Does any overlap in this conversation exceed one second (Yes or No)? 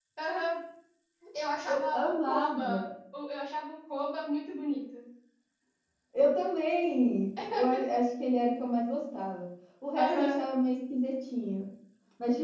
Yes